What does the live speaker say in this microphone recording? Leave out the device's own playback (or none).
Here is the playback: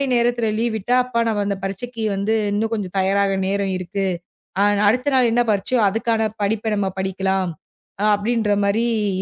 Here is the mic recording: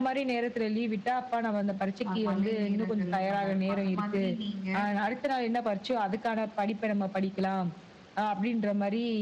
அ மழை நேரங்கள்ல நல்லாருக்கும். அந்த மாதிரி நீங்க